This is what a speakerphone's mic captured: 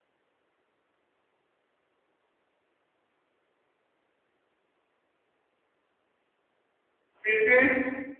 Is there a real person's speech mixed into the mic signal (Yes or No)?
Yes